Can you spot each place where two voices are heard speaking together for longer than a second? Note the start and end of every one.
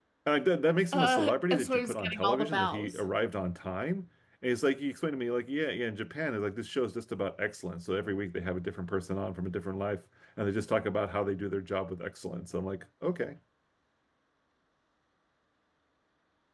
0.9-3.0

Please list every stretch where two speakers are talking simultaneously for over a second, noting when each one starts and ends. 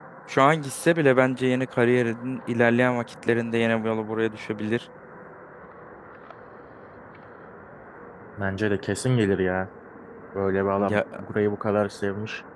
none

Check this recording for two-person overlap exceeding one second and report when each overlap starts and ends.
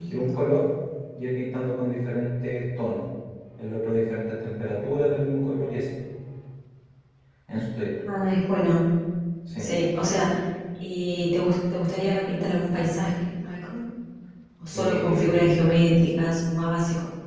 14.7-16.0

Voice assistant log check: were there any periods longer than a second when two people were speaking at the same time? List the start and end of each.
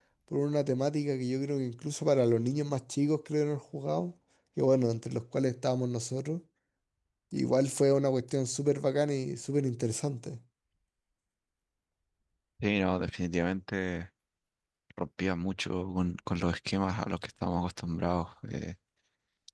none

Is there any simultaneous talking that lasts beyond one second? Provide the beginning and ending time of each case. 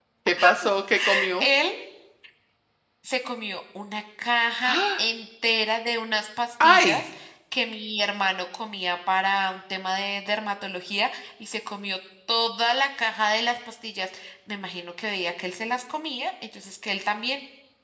none

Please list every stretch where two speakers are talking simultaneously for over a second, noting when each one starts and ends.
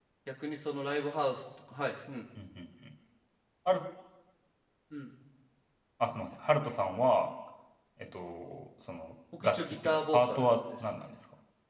9.4-10.8

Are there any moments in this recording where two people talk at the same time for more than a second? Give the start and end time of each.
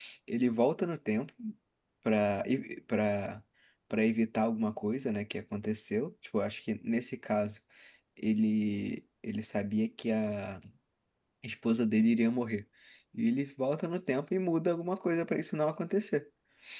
none

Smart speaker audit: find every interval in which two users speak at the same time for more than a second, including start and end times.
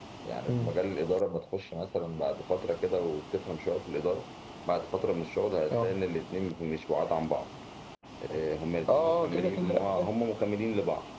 8.9-10.1

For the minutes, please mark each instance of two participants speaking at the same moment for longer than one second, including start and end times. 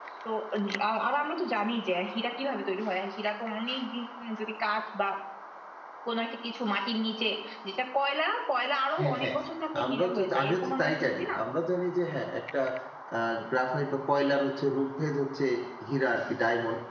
9.8-11.2

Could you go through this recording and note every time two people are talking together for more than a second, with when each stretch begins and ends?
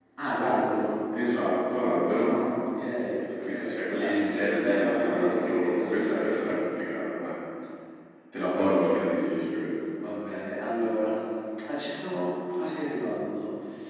3.4-6.4

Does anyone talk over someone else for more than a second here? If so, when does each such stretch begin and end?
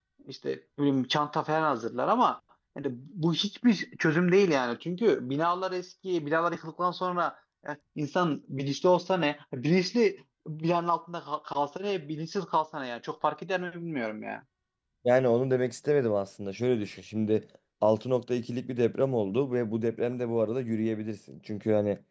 none

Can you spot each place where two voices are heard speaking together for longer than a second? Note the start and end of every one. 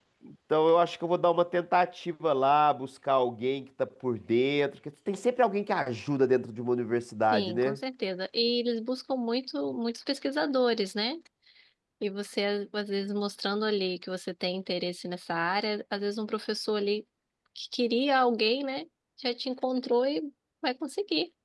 none

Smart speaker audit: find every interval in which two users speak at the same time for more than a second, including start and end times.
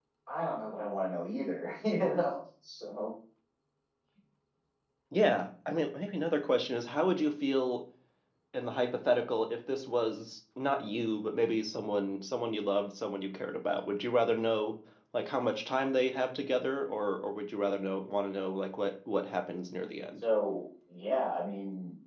none

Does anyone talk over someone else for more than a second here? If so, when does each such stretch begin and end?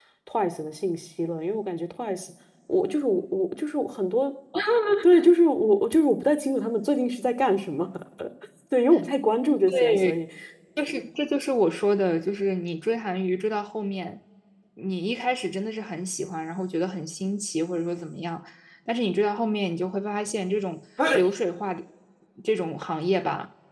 none

